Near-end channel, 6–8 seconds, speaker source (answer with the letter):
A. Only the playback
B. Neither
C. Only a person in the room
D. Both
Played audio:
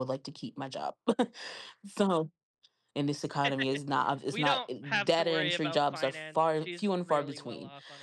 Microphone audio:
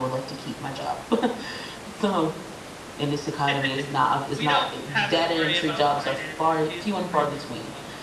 A